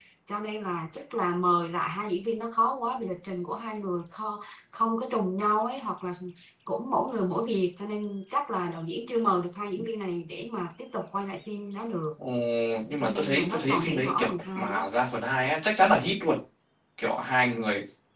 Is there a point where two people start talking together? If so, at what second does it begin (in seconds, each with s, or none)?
13.0 s